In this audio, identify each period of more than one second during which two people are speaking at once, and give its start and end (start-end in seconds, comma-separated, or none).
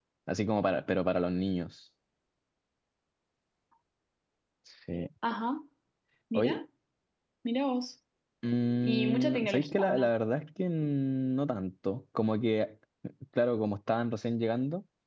8.8-10.1